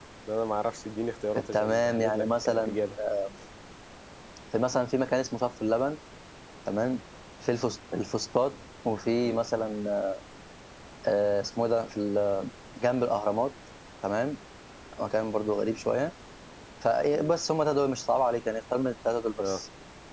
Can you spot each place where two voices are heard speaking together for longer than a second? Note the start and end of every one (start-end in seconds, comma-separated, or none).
1.5-2.7